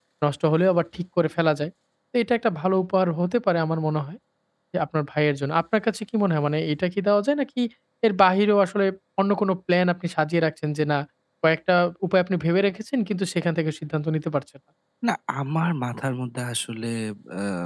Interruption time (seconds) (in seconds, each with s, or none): none